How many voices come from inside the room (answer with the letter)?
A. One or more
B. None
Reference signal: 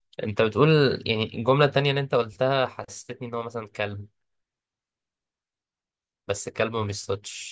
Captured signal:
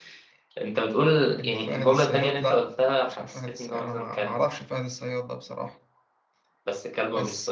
A